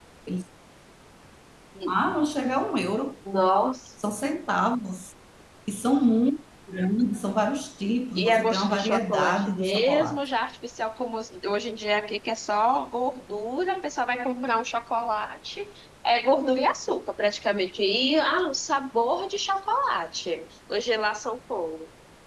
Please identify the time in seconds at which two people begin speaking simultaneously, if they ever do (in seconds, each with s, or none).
8.2 s